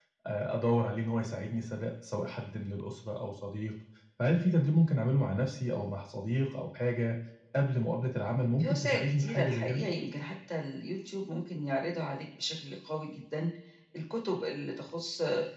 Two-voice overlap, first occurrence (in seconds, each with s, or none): 8.6 s